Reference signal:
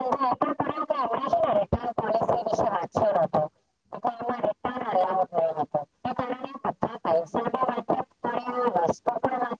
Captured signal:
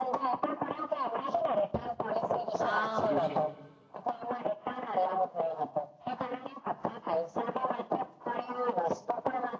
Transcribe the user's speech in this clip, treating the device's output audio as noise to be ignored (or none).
હાજુ છે